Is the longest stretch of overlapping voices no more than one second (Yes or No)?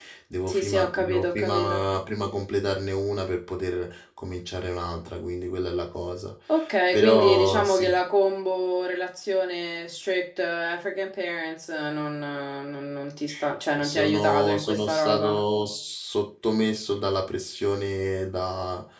No